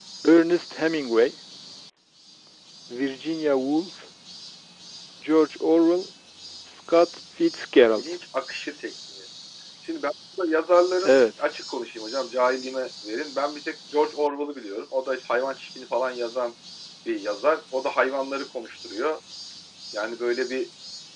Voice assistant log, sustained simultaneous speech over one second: none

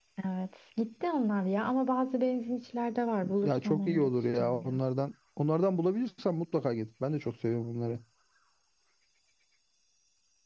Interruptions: present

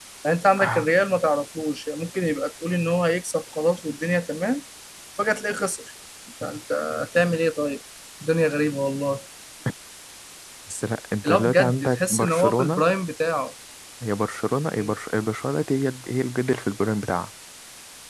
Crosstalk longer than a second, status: present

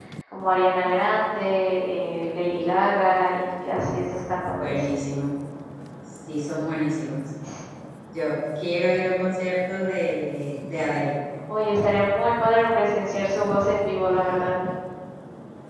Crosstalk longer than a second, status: none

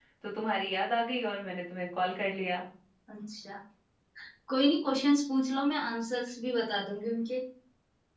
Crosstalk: none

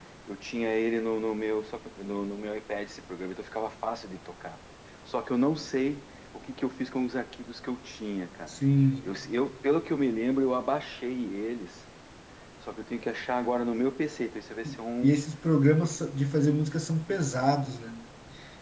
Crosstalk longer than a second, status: none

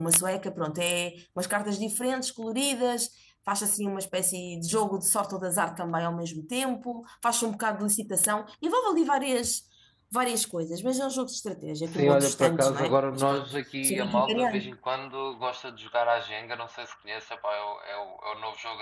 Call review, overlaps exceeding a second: present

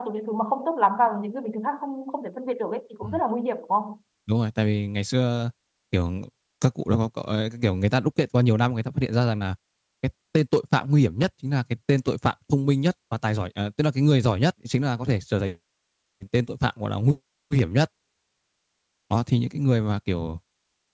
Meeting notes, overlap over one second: none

